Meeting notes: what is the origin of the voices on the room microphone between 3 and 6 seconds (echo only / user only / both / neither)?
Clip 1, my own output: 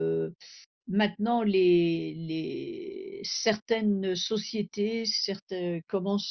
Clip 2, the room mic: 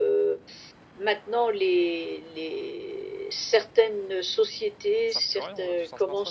both